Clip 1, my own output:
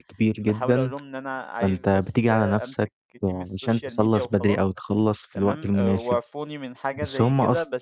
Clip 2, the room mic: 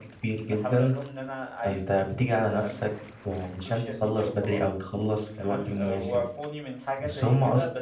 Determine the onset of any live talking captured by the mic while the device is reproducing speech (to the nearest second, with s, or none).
none